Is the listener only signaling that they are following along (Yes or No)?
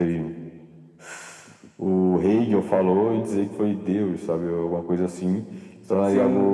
No